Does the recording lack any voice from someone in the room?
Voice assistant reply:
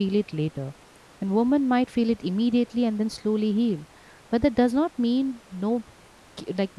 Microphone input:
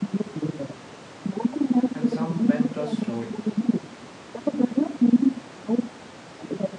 No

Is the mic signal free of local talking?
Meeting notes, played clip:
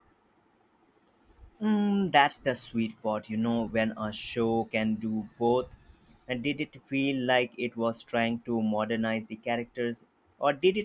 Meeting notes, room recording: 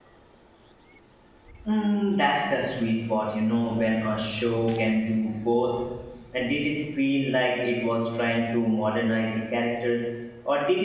Yes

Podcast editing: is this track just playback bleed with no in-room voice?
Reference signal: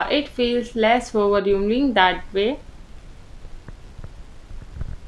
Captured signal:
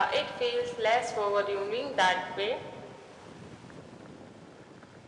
Yes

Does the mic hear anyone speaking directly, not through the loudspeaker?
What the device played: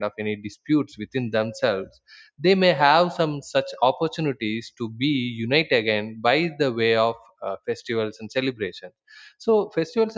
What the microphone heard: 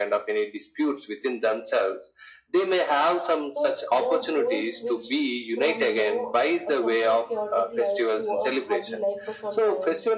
Yes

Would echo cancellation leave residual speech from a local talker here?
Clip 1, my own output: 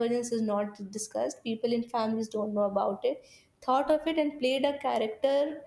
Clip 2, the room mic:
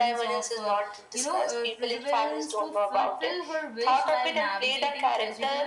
Yes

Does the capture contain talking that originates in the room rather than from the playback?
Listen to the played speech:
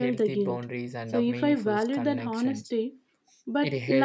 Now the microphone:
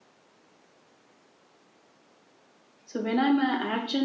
Yes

